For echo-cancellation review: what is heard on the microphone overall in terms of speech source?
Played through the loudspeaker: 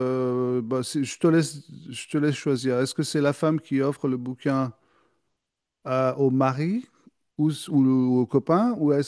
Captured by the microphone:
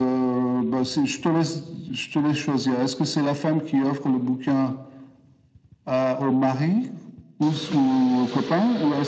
echo only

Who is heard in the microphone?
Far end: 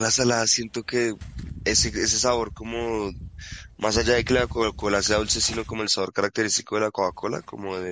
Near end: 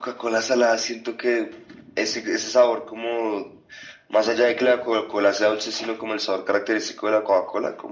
echo only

